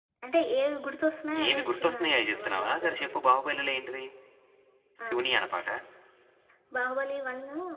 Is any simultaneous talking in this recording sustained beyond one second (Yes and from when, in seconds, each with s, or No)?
Yes, from 1.4 s